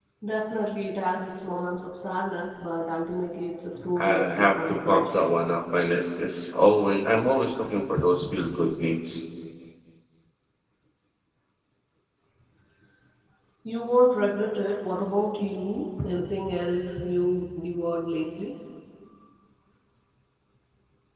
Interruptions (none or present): present